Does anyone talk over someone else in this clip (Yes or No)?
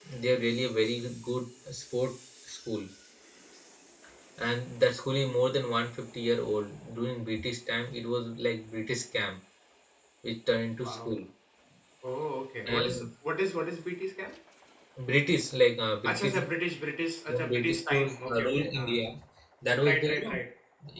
Yes